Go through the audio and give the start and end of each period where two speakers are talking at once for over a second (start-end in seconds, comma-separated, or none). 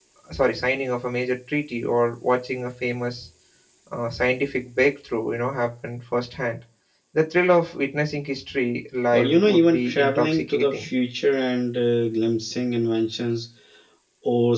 9.1-10.9